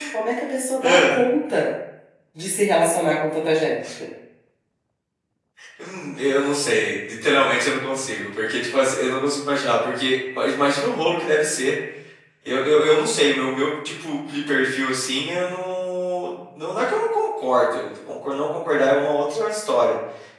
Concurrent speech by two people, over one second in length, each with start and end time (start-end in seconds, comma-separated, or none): none